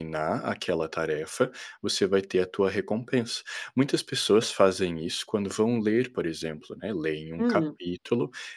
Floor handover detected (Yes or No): No